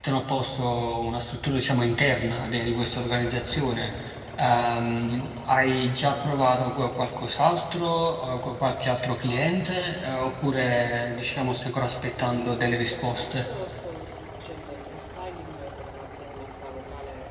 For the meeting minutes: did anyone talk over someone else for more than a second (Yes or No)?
Yes